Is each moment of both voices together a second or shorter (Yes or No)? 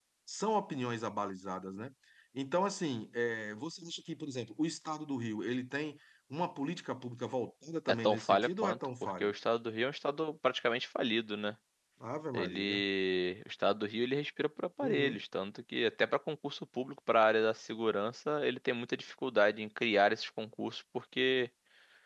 No